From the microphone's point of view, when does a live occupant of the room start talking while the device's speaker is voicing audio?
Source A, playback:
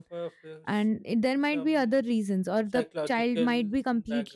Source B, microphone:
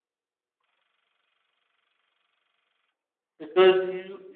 3.4 s

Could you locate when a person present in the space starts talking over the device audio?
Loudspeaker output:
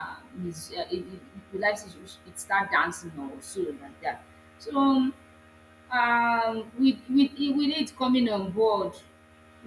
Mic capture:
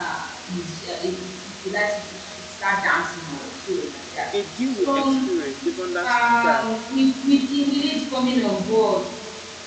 4.3 s

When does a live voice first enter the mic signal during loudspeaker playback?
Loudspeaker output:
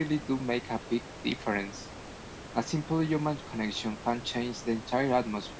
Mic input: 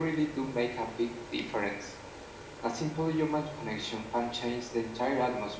none

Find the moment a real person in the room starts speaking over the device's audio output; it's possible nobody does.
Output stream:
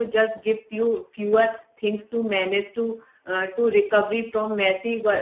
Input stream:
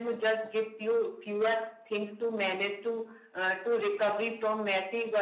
none

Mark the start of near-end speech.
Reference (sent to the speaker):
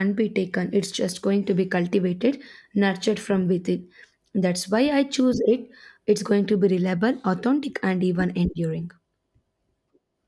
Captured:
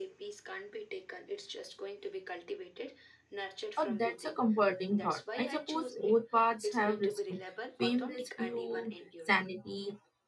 3.8 s

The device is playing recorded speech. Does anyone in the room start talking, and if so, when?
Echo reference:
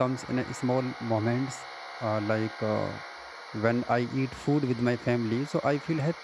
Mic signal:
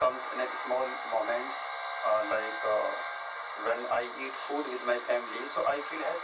none

